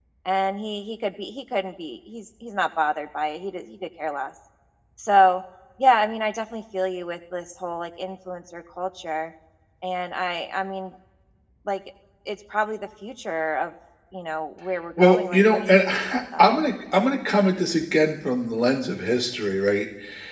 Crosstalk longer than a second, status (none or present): present